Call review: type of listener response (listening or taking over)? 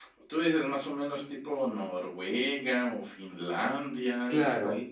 taking over